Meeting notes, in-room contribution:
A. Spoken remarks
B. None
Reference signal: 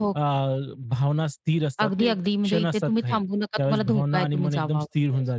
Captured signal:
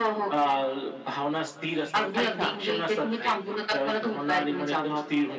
A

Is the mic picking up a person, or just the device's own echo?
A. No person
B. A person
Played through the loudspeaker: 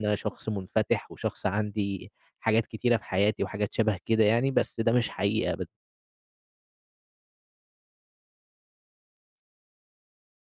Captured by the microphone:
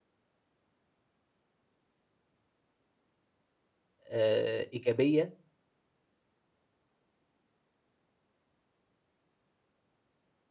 B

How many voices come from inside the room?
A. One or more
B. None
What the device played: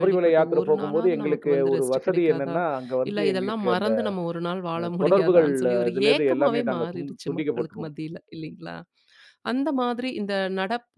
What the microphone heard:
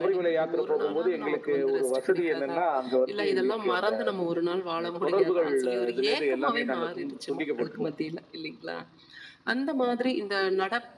B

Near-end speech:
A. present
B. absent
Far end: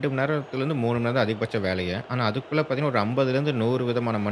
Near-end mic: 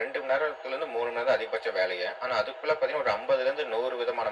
B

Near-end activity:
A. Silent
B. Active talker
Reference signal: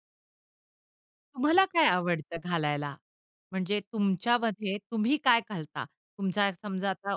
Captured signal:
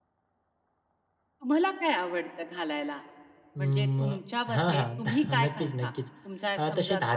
B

